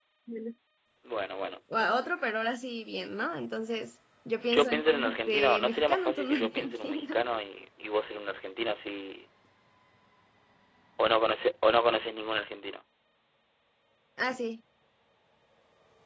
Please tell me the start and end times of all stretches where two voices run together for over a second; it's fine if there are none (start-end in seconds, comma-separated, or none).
4.5-7.2